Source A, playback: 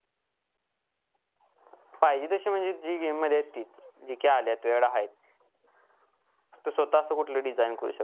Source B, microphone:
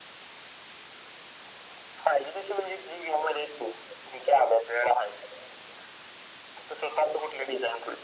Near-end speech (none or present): none